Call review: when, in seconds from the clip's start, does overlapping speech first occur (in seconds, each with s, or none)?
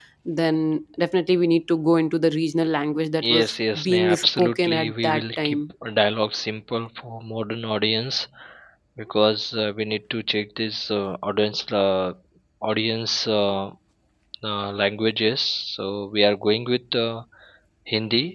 3.2 s